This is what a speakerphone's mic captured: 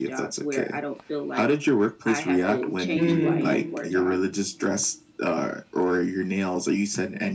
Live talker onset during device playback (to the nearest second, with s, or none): 3 s